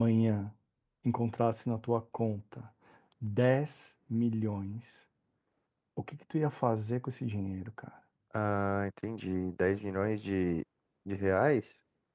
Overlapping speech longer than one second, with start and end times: none

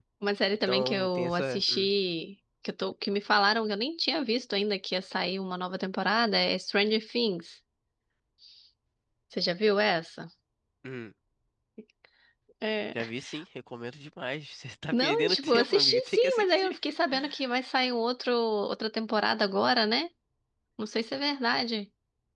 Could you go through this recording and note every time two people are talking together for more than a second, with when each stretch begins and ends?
0.7-1.9, 14.9-16.8

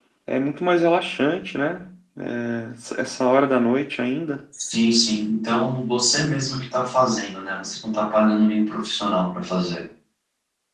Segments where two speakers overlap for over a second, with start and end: none

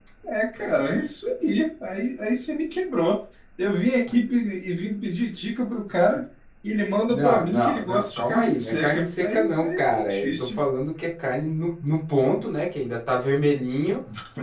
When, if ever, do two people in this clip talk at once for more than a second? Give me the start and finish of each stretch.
7.1-10.6

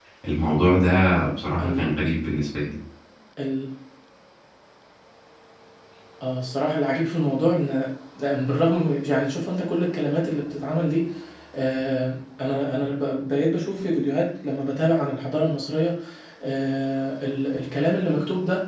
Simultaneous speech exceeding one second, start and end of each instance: none

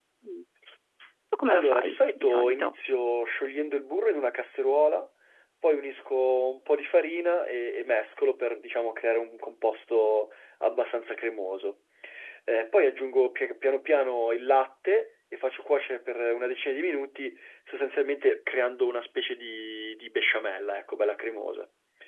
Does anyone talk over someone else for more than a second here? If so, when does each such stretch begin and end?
1.5-2.7

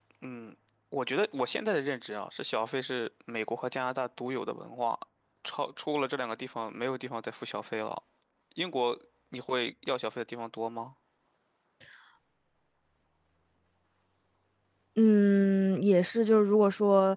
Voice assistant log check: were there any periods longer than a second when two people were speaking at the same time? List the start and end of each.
none

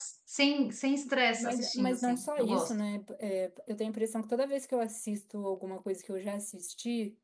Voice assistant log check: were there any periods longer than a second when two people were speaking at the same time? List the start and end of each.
1.4-2.7

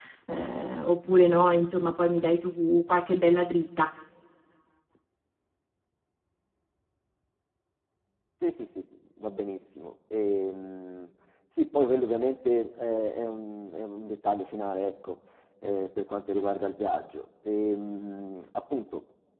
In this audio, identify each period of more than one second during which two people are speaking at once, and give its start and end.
none

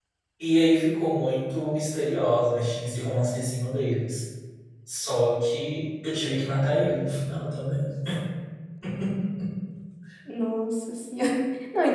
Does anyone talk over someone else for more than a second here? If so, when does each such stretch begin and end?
none

